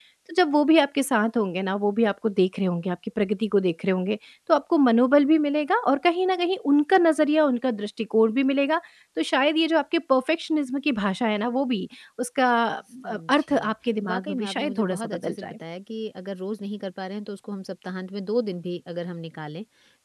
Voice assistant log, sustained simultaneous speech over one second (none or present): present